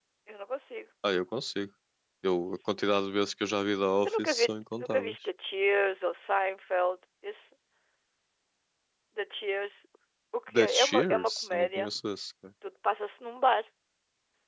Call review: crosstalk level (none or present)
present